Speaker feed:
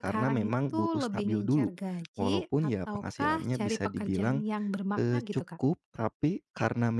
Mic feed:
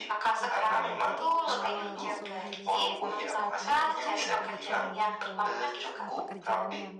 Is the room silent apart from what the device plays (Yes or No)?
No